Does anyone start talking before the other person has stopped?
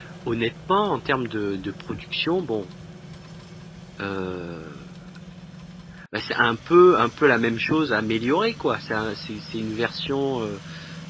No

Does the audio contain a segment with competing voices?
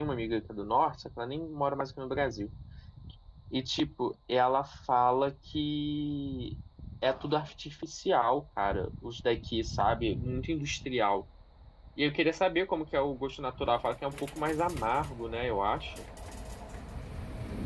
No

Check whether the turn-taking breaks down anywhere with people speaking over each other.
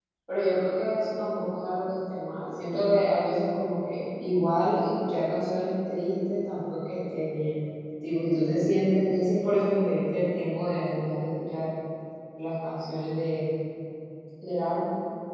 No

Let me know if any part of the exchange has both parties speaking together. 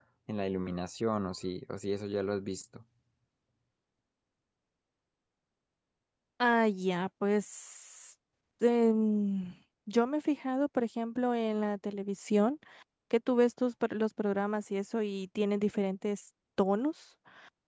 No

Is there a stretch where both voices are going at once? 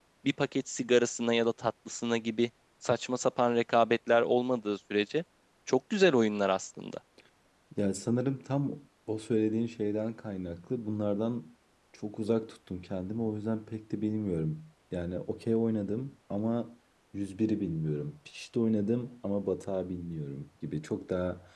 No

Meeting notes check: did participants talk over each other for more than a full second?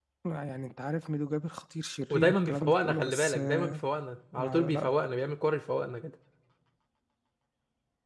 Yes, from 2.1 s

